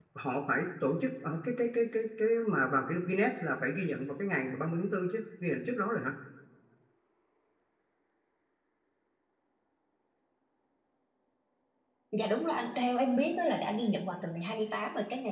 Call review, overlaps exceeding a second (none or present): none